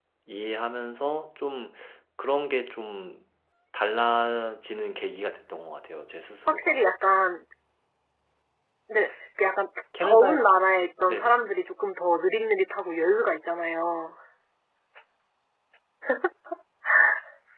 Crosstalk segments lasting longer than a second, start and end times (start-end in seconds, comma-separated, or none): 10.0-11.4